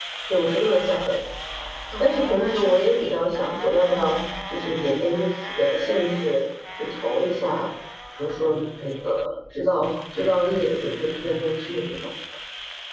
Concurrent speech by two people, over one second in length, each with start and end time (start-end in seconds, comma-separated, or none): 2.0-3.3